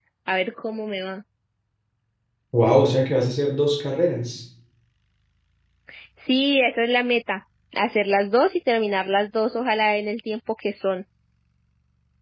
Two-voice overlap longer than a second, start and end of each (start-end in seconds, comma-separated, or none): none